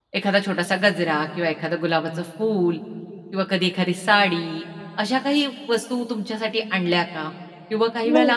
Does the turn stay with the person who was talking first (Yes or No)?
Yes